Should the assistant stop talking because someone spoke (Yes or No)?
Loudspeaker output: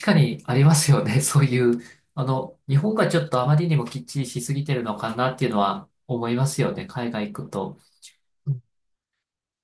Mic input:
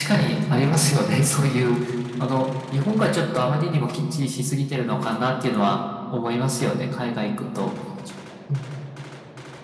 No